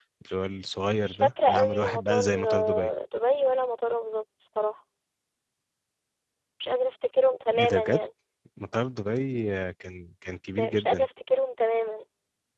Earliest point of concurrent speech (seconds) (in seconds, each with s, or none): 1.0 s